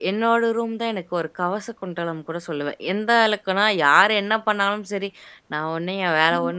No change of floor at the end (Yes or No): Yes